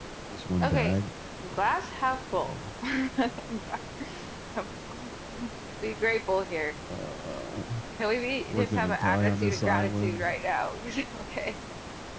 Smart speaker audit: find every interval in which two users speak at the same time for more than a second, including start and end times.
8.5-10.3

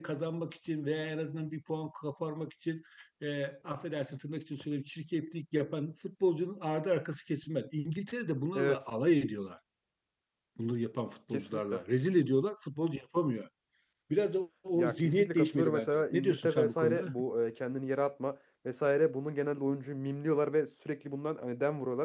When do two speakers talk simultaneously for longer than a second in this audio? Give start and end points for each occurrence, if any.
14.8-17.1

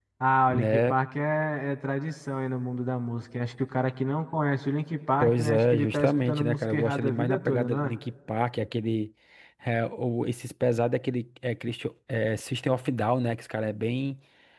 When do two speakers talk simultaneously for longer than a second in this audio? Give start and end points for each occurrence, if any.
5.2-7.9

